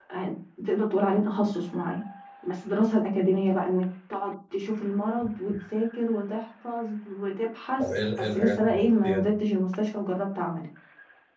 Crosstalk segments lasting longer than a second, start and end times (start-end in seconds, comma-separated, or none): 7.8-9.3